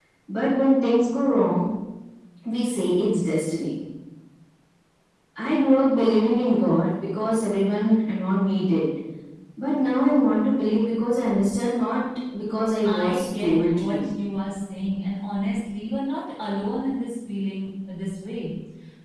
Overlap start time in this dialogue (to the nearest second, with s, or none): 13 s